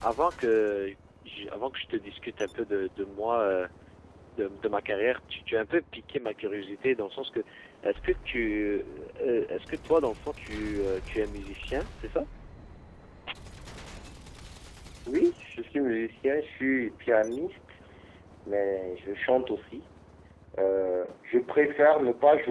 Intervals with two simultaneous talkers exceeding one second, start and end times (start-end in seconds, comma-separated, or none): none